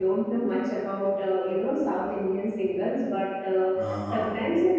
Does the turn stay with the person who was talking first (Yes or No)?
Yes